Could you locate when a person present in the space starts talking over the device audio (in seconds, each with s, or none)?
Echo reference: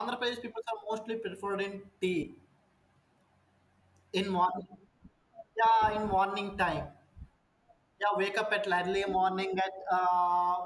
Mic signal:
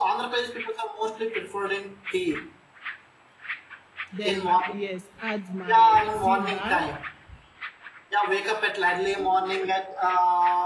4.1 s